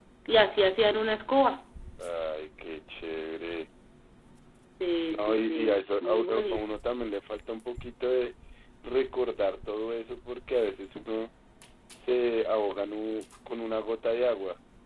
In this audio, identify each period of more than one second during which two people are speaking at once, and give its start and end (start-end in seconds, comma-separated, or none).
5.1-6.6